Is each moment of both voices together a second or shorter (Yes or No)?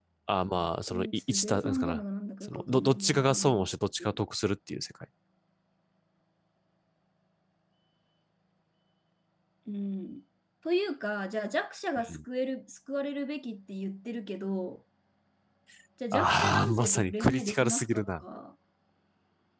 No